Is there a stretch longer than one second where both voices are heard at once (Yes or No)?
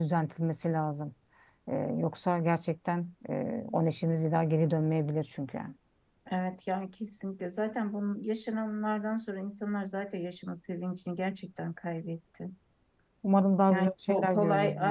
Yes